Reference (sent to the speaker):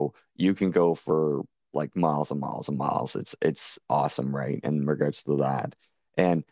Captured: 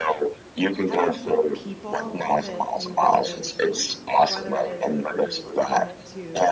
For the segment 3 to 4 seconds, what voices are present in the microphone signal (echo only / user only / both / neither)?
both